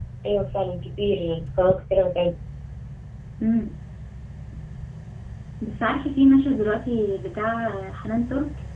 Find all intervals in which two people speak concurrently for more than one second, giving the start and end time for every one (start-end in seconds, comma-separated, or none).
none